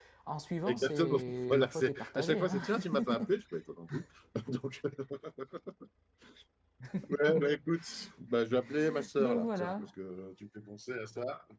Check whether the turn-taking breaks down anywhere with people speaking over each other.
Yes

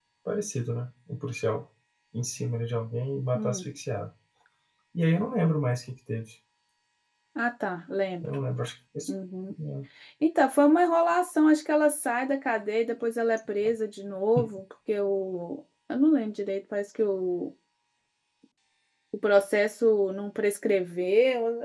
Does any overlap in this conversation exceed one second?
No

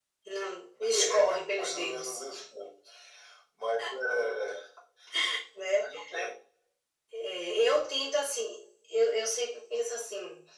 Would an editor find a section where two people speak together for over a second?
Yes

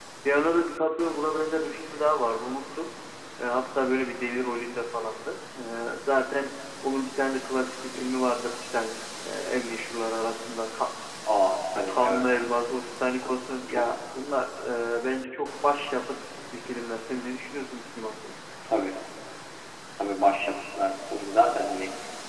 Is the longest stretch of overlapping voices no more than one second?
Yes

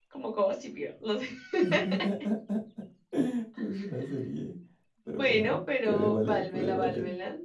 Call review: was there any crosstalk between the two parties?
Yes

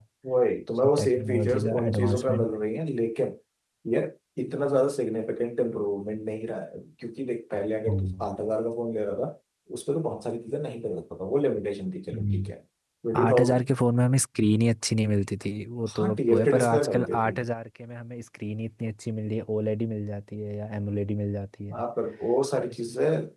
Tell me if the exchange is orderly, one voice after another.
No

